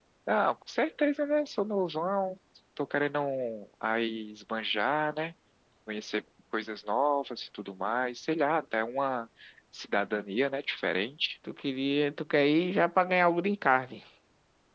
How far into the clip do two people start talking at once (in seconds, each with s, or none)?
none